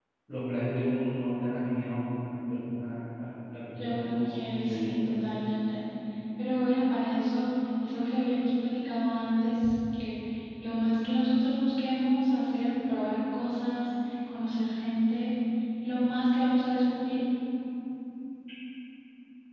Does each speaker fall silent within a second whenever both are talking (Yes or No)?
No